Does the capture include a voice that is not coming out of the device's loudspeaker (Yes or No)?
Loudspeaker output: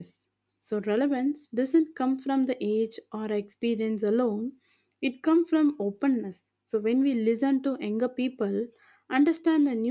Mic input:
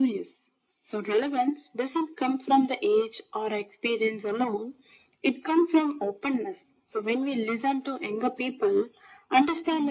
No